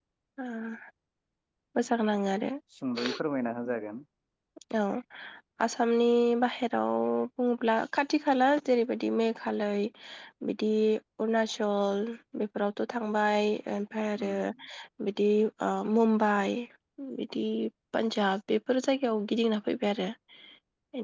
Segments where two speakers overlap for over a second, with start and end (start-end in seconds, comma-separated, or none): none